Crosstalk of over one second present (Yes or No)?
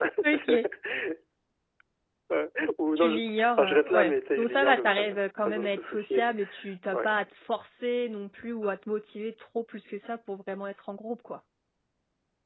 Yes